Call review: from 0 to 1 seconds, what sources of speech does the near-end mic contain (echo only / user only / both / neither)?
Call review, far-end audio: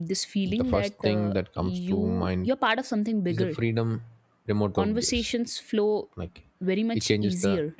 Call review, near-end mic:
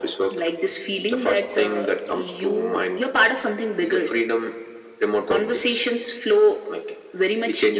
echo only